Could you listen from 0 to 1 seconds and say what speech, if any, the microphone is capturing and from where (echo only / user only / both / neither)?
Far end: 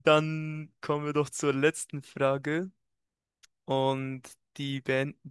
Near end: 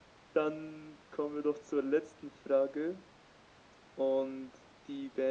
echo only